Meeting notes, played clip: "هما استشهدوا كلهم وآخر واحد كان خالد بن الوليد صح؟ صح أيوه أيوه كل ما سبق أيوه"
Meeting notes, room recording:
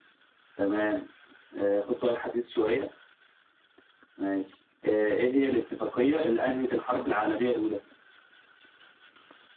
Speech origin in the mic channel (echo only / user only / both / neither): user only